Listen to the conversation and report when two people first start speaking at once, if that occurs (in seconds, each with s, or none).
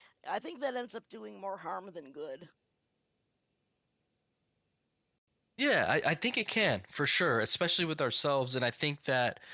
none